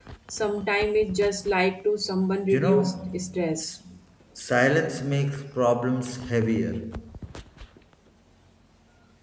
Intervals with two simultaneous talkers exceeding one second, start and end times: 2.5-3.8

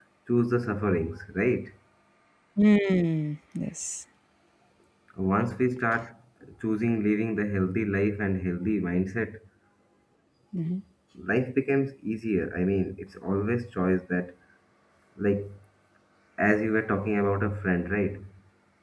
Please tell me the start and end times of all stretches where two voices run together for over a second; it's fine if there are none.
none

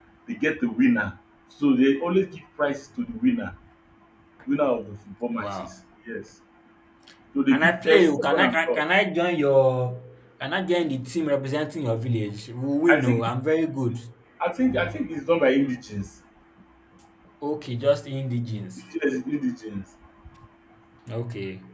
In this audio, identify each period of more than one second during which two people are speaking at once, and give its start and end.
7.5-8.8

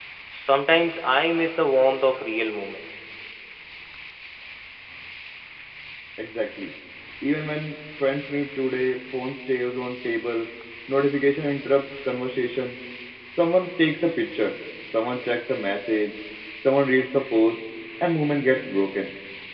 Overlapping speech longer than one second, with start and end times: none

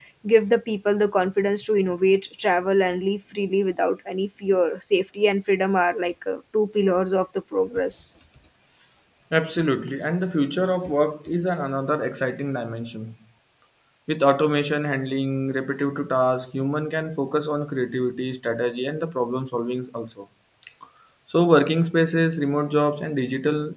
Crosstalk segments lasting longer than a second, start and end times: none

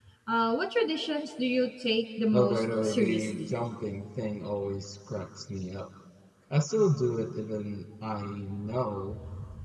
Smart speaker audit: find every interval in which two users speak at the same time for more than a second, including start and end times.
2.3-3.5

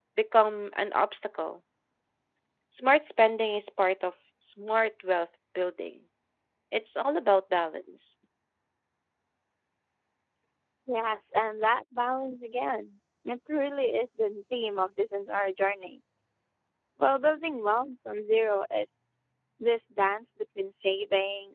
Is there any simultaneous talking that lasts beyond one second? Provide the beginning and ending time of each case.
none

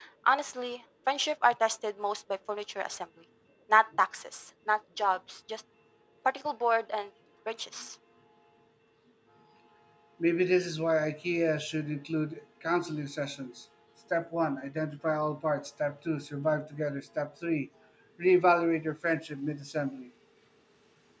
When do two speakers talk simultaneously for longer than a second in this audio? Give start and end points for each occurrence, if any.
none

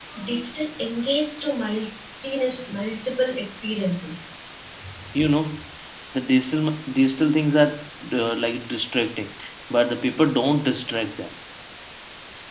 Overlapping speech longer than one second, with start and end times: none

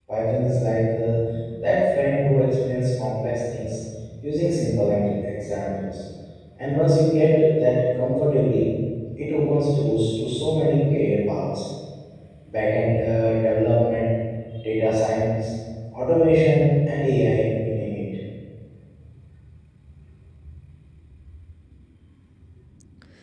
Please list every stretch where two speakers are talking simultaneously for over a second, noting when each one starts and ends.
none

